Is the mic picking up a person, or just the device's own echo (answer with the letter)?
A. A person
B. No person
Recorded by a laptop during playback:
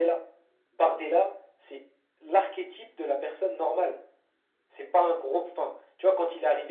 B